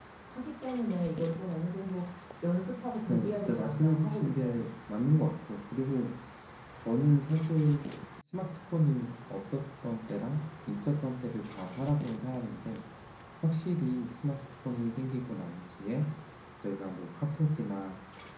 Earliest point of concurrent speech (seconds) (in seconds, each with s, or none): 3.1 s